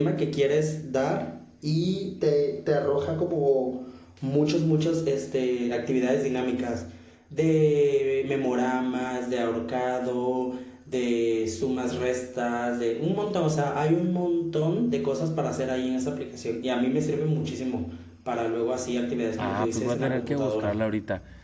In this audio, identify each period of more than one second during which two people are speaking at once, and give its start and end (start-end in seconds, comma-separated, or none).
19.4-20.8